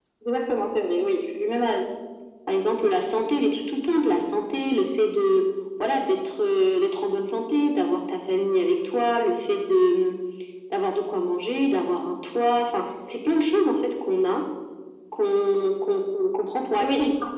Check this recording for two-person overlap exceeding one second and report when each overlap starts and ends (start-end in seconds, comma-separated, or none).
none